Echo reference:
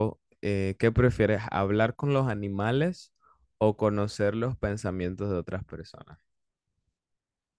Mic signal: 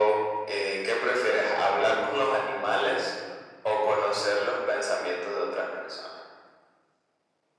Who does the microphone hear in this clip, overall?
echo only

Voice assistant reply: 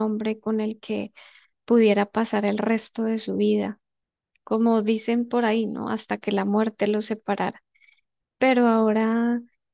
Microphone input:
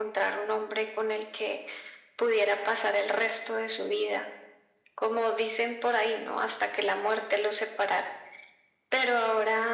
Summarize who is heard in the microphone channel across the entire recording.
echo only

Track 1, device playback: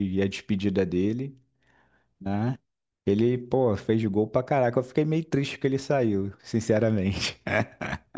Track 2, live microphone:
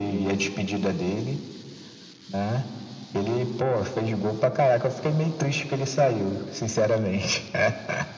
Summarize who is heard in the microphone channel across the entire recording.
echo only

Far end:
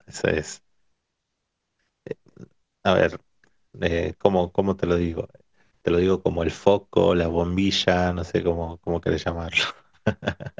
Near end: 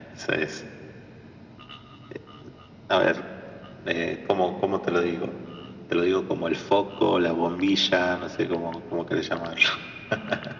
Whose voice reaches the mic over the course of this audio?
echo only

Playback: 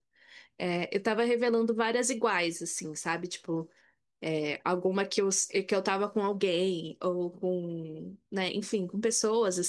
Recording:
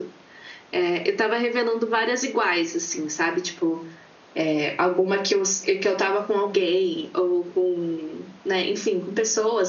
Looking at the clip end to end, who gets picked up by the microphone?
echo only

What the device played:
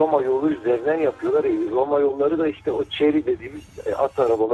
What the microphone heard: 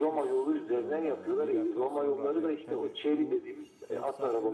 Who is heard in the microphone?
both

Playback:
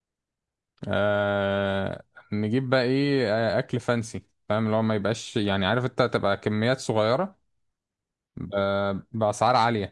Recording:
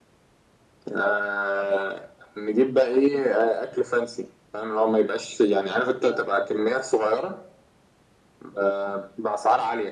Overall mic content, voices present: echo only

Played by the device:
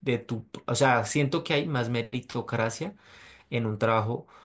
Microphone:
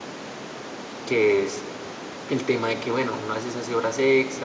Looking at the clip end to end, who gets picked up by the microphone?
user only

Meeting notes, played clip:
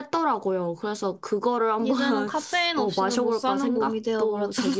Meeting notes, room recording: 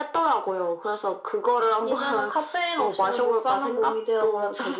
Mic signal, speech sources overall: echo only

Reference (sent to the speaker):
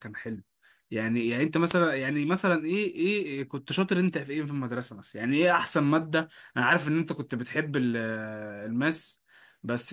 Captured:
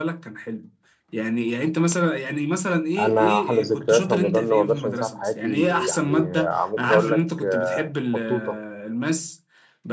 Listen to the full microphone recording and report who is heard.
both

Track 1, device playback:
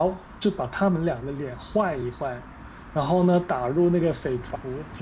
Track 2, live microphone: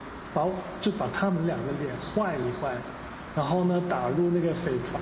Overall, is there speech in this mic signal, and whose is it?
echo only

